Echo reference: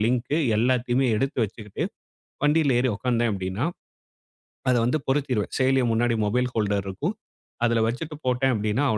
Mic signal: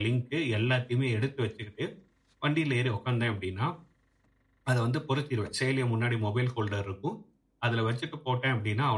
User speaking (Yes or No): No